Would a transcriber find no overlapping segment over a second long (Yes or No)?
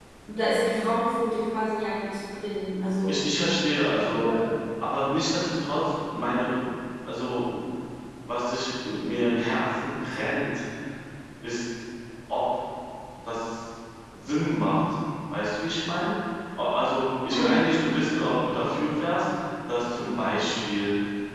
Yes